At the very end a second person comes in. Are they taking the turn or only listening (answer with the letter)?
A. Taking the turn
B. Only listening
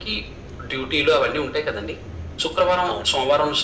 B